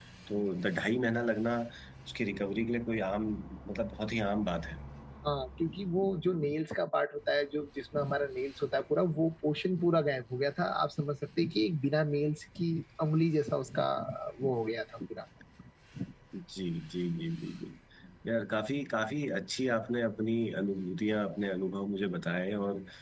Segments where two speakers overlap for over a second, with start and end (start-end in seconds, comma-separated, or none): none